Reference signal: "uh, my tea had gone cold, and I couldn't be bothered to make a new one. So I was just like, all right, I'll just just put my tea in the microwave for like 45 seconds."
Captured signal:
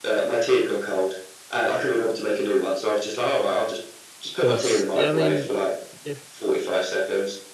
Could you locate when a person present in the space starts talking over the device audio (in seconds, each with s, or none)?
4.4 s